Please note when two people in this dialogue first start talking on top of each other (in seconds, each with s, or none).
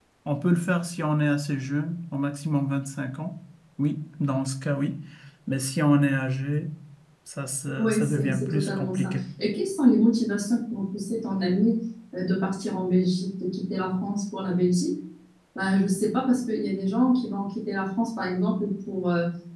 7.8 s